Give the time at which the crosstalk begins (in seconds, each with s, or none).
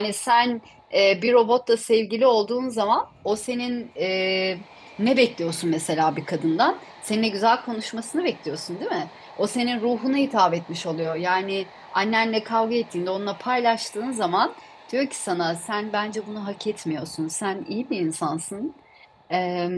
none